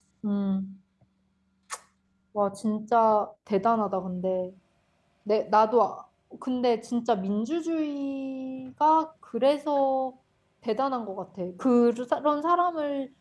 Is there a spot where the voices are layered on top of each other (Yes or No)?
No